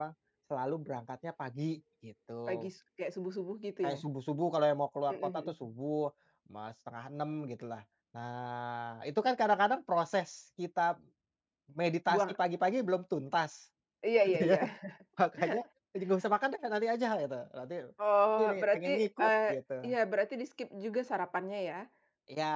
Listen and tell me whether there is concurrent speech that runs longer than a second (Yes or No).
Yes